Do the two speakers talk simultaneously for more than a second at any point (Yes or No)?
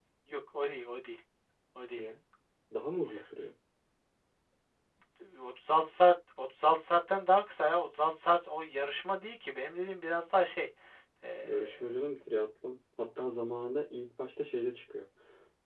No